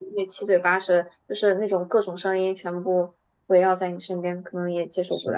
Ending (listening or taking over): taking over